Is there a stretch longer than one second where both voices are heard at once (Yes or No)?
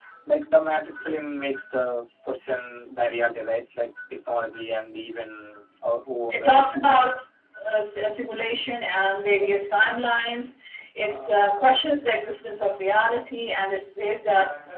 No